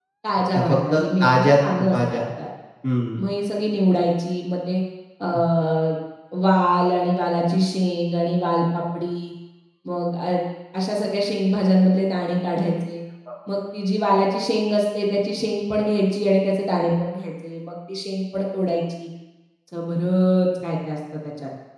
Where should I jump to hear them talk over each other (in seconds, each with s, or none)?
0.5 s